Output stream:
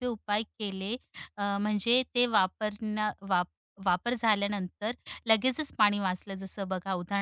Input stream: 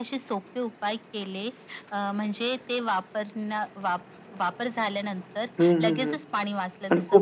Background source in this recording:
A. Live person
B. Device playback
B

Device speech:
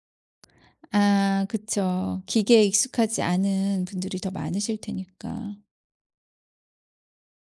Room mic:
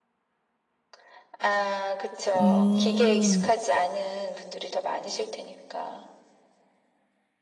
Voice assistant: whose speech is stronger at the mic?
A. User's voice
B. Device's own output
A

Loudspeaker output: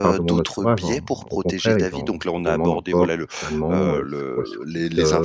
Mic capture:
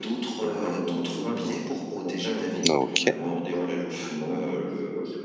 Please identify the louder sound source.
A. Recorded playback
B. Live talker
B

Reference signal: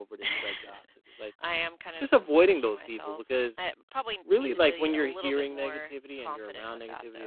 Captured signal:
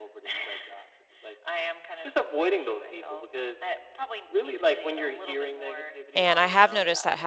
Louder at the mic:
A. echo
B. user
B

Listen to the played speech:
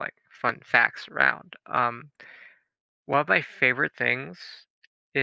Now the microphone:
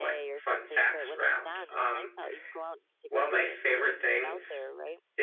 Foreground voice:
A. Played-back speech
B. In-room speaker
A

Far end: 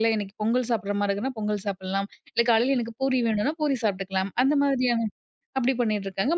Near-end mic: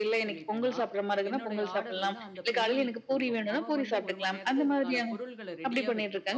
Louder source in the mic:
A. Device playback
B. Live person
A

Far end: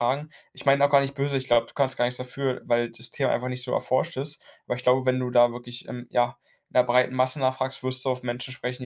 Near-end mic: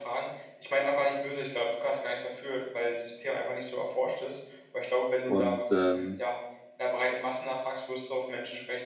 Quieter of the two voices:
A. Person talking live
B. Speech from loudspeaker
B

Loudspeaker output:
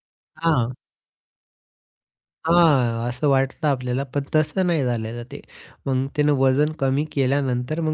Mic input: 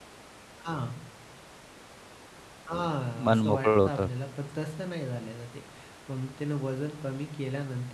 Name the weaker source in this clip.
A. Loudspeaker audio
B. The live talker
A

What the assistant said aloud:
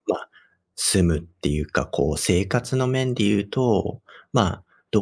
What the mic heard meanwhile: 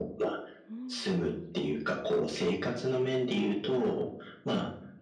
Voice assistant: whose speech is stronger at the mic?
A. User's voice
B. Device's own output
B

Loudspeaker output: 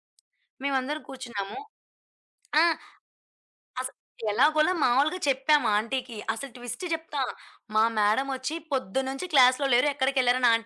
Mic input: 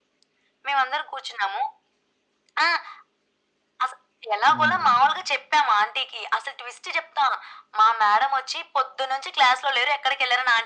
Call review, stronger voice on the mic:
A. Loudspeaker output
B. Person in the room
A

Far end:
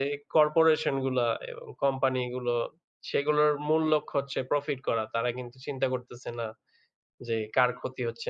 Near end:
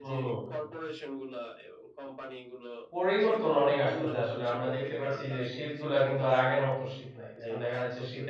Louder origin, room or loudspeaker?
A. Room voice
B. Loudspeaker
A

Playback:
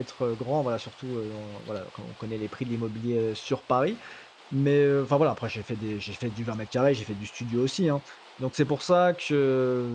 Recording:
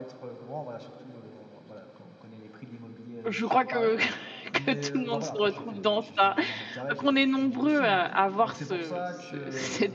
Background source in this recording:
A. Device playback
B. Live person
A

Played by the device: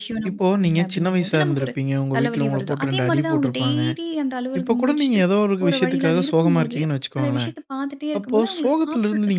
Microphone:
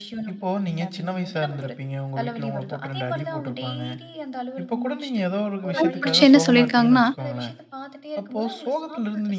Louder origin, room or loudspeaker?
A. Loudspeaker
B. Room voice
B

